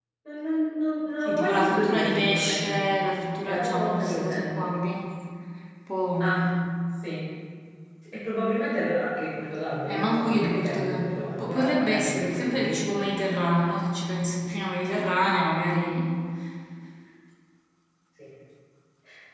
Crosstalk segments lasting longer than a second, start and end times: 1.2-2.8, 3.4-4.7, 9.8-12.8

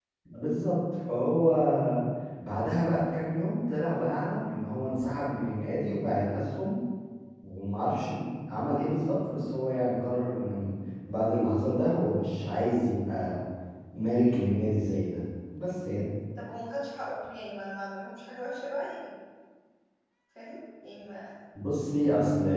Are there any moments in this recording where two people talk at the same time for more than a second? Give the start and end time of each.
none

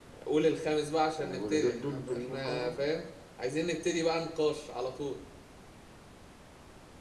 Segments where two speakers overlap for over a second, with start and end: 1.2-2.9

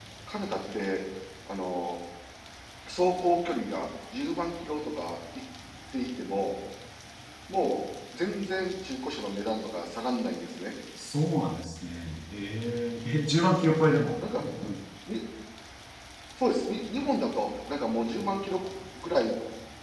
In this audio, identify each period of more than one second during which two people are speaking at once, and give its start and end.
none

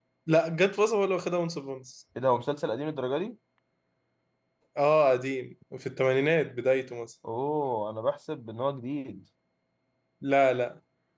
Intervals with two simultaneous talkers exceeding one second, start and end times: none

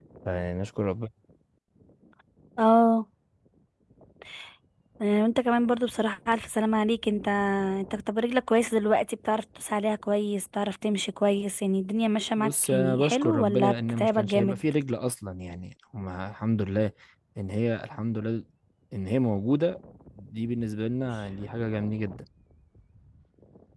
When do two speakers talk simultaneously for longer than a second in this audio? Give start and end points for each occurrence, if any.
12.4-14.6

